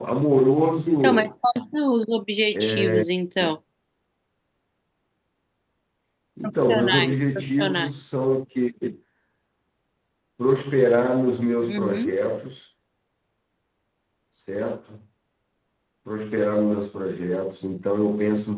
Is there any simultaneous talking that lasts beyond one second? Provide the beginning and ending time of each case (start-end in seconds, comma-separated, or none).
6.7-7.9